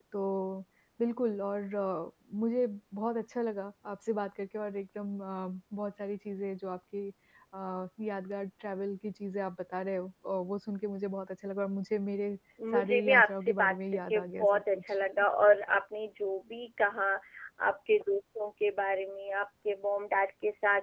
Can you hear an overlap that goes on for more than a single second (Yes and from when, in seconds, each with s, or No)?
Yes, from 12.7 s